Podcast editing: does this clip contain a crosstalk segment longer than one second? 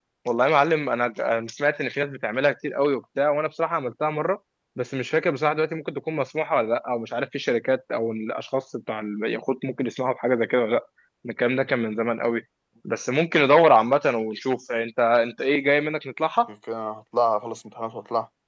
No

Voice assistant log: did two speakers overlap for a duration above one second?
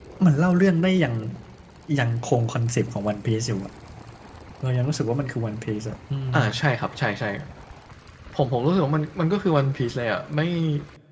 No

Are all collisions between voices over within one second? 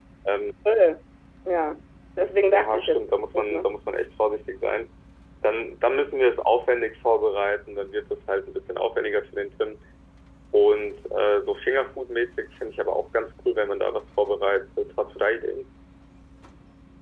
No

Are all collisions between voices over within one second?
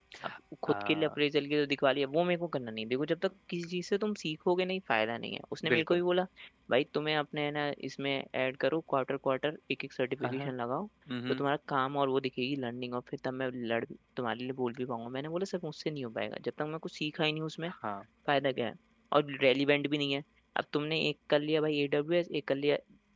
Yes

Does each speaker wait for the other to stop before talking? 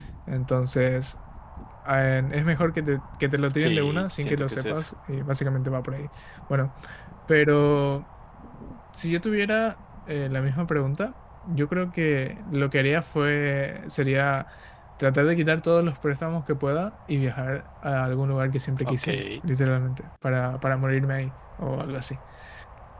No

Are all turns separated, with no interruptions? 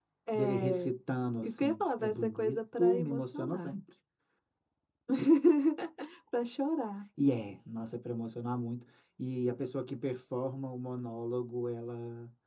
No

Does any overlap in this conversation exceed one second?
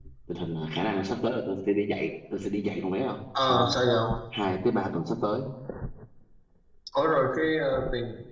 No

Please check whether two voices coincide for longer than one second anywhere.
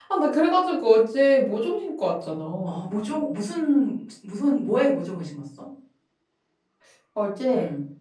No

